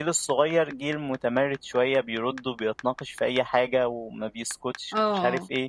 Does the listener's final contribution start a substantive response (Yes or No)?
No